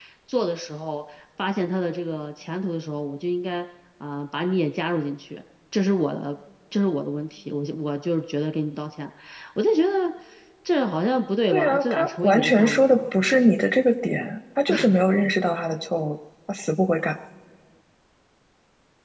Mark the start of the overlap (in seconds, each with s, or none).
11.5 s